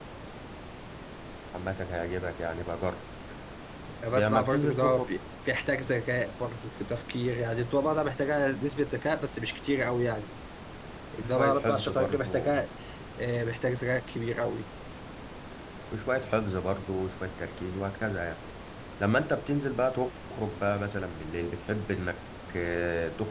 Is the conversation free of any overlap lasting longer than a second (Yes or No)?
No